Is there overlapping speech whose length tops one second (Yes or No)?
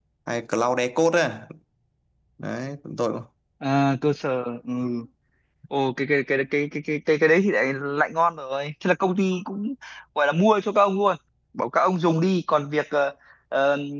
No